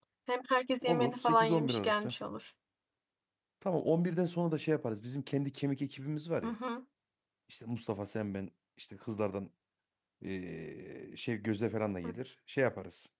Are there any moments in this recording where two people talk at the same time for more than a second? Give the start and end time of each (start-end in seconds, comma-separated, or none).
0.9-2.1